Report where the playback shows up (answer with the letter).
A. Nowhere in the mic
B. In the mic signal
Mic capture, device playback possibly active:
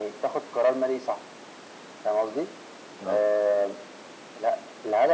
B